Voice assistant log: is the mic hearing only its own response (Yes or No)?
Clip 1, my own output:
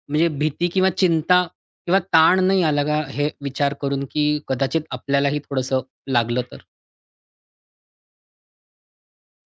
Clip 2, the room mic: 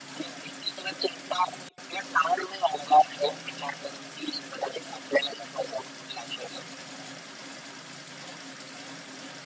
Yes